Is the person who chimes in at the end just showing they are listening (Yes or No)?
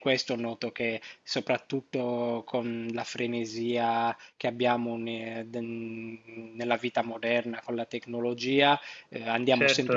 Yes